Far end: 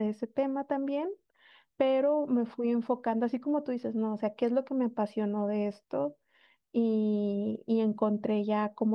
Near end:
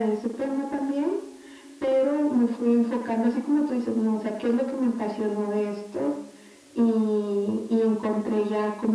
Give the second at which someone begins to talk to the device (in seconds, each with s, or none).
none